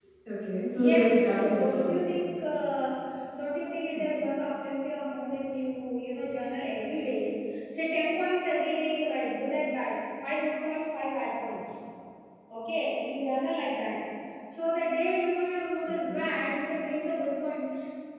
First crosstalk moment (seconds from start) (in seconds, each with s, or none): 0.8 s